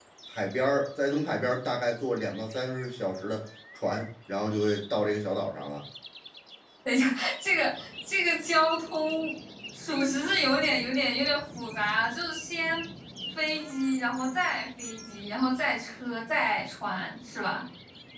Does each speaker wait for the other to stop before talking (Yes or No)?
Yes